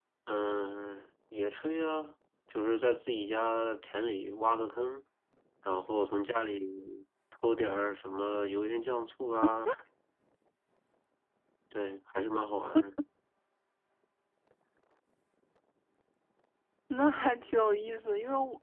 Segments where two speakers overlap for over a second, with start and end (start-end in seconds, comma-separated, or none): none